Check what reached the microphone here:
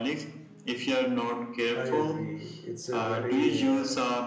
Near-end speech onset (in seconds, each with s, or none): 1.7 s